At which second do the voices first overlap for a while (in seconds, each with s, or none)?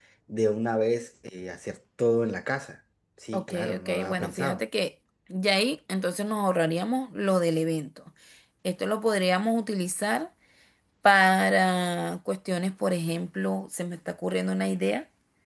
3.3 s